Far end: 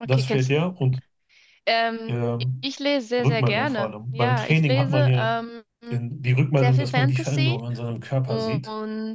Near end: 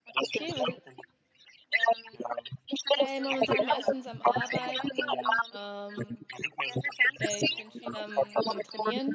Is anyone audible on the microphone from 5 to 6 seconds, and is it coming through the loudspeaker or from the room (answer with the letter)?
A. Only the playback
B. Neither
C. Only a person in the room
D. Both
D